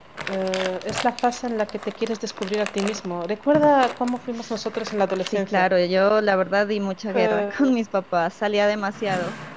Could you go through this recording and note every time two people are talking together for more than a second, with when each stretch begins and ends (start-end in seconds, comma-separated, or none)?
none